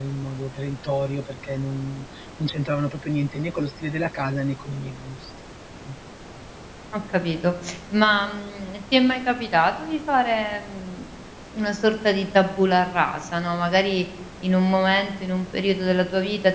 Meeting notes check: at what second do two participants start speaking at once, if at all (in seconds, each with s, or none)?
none